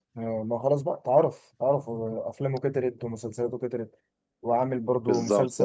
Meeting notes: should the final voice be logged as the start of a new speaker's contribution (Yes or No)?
Yes